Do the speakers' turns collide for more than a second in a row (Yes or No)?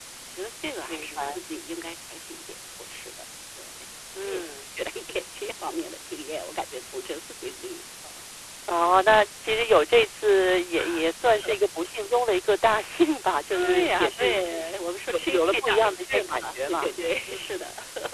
Yes